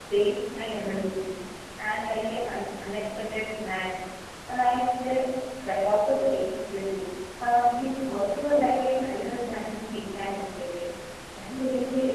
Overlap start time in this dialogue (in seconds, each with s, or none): none